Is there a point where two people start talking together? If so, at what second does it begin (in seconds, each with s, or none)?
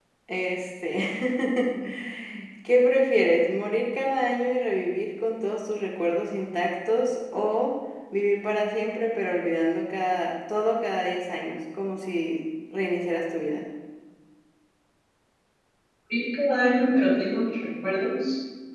none